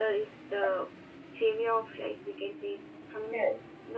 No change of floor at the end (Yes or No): Yes